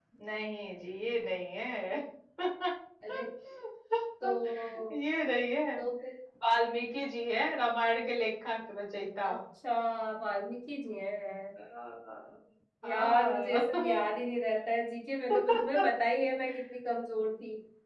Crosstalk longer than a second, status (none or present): present